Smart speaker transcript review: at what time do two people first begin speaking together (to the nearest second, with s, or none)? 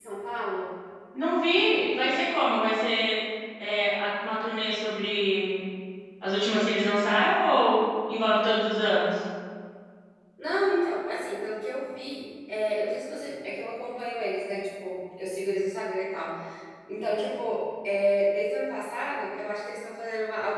none